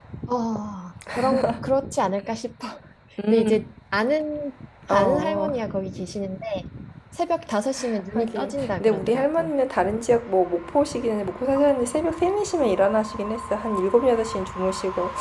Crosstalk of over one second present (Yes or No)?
Yes